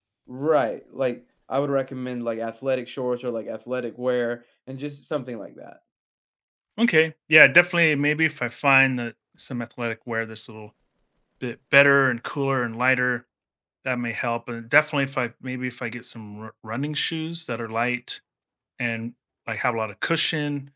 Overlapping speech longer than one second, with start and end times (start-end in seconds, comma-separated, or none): none